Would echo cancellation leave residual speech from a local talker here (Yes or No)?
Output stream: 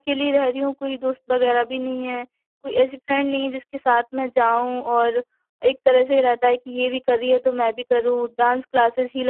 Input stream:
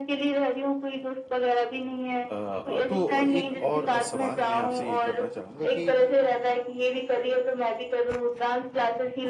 Yes